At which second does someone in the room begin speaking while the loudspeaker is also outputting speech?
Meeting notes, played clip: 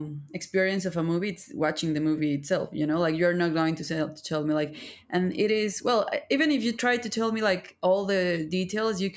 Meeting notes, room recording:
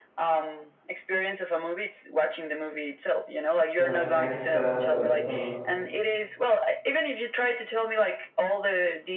3.8 s

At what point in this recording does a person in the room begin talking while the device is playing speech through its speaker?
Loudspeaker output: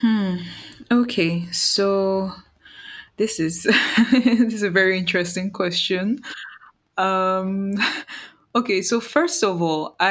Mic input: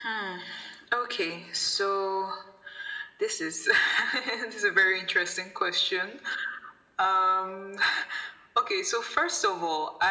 none

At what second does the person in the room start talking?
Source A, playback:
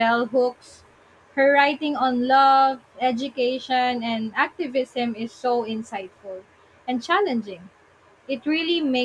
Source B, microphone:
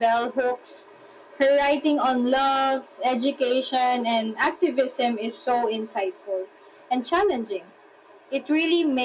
none

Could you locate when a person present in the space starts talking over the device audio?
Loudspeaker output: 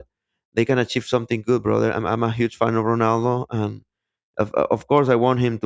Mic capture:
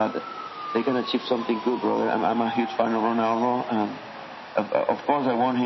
none

